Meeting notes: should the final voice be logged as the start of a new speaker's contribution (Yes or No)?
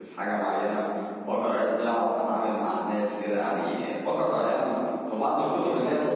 Yes